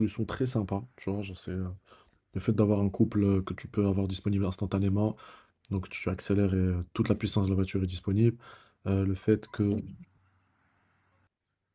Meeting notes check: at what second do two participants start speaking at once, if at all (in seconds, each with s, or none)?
none